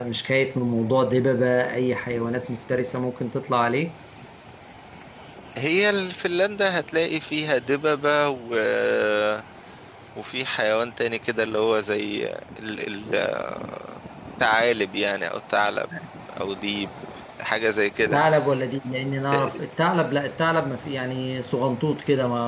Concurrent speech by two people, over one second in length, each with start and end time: none

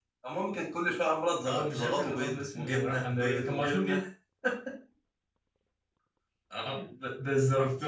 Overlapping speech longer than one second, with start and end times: 1.5-4.0

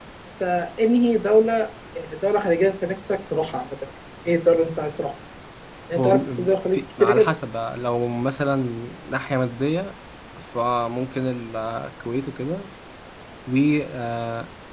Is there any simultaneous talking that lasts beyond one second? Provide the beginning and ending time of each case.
6.0-7.3

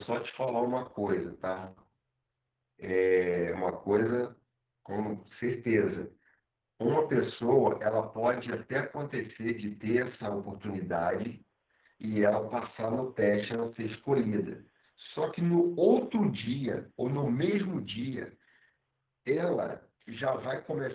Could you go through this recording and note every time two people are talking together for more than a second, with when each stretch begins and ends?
none

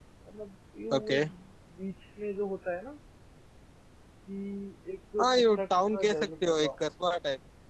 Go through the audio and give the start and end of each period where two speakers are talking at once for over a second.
5.2-6.7

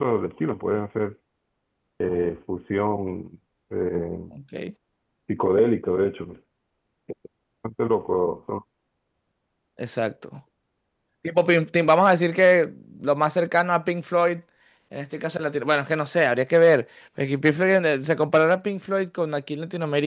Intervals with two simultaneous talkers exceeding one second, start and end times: none

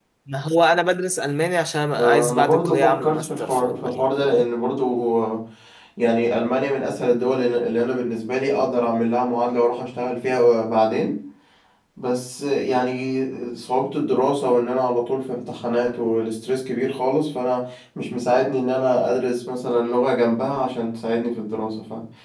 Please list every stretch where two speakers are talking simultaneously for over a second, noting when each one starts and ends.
2.0-4.4

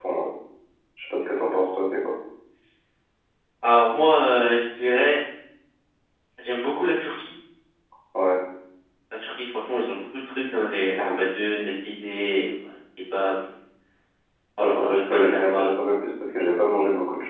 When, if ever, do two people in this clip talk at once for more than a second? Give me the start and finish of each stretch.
14.6-15.8

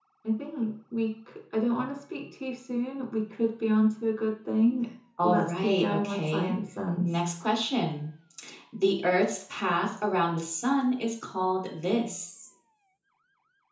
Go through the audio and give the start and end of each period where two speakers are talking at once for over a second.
5.2-6.5

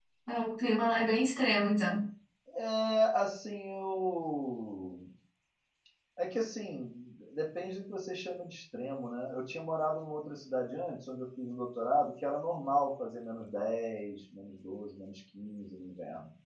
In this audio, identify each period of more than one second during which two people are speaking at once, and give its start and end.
none

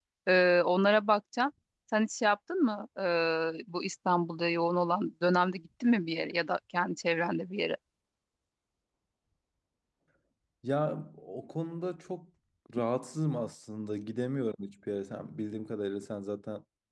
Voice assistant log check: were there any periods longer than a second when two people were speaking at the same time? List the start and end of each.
none

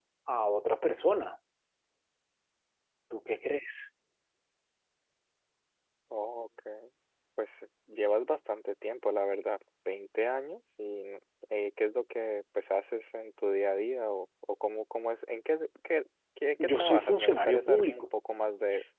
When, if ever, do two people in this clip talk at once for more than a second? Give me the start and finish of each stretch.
16.6-18.1

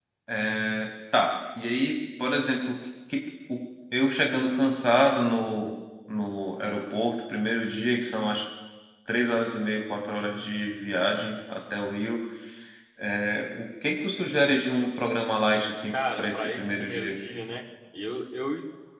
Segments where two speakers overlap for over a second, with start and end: 15.9-17.2

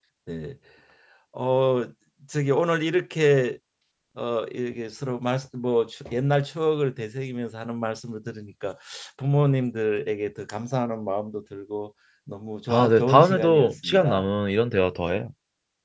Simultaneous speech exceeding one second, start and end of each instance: 12.7-14.3

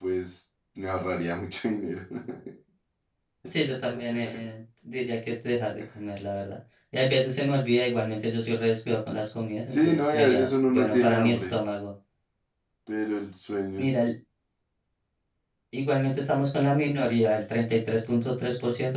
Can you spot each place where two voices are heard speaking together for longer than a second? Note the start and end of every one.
9.7-11.5

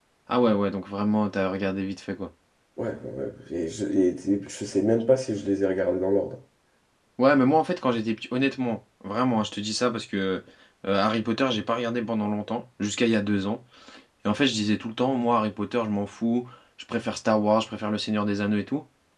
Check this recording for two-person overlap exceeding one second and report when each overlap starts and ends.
none

